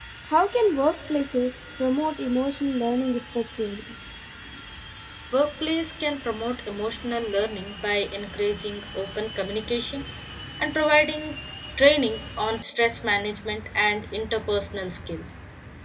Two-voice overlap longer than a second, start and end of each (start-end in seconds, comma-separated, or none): none